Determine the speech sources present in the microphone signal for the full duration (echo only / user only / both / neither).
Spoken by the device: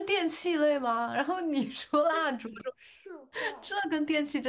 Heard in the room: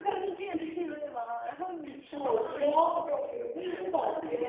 both